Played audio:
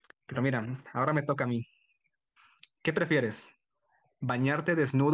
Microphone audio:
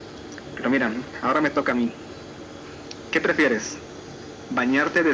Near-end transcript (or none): none